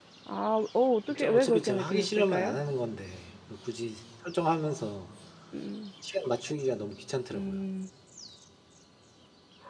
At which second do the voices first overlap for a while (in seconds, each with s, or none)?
1.1 s